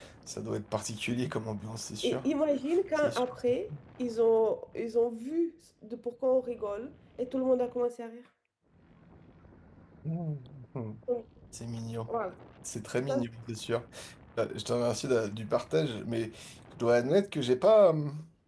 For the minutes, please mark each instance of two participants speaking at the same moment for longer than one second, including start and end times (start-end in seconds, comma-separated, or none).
none